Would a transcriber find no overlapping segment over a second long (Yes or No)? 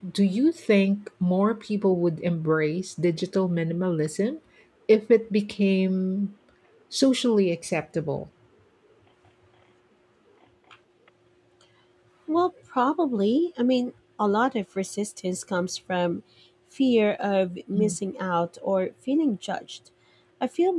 Yes